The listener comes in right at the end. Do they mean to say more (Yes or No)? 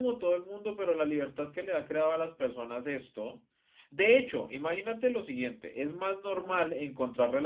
No